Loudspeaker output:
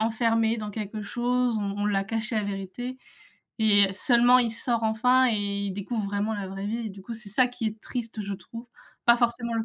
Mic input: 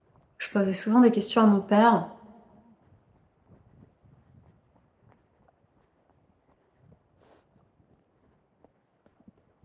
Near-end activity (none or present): present